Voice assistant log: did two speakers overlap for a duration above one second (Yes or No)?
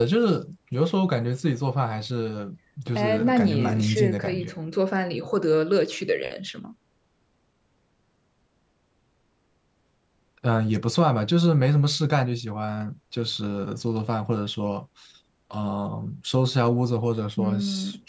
Yes